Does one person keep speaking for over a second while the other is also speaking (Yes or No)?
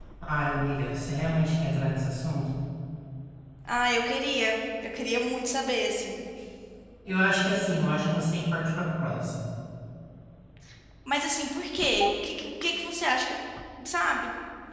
No